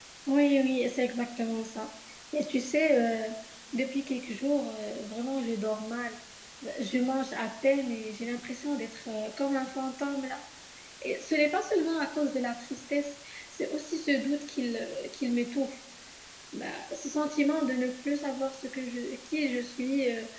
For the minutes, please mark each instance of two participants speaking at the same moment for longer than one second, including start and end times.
none

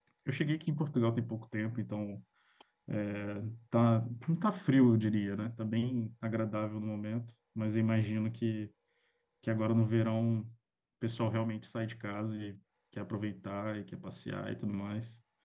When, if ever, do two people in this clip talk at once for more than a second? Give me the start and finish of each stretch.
none

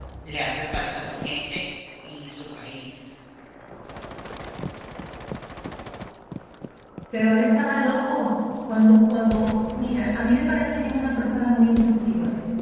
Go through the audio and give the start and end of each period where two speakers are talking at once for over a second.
none

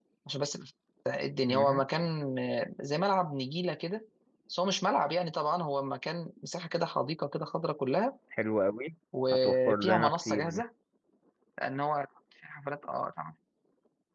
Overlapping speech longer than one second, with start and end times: 9.3-10.6

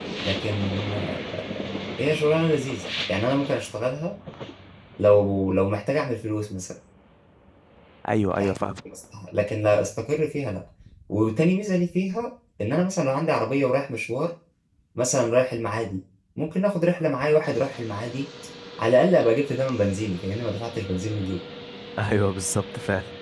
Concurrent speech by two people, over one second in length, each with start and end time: none

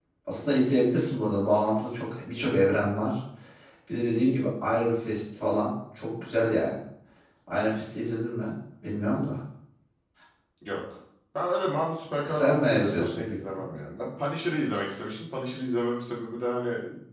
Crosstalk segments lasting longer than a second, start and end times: 12.2-13.6

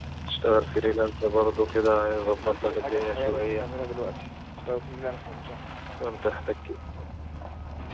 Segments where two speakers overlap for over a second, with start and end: 2.1-3.6

